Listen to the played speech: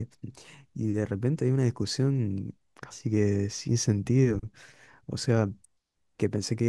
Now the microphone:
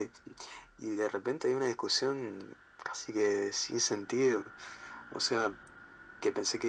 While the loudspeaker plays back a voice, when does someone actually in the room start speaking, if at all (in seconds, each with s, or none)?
none